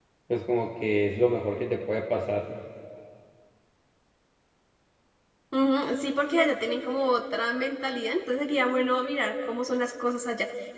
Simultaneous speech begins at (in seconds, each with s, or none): none